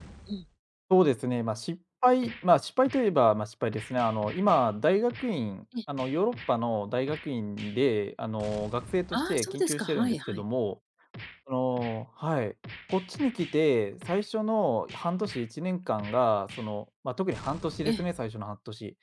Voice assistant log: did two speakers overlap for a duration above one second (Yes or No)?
Yes